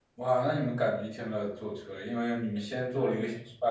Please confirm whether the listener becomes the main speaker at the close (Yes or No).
No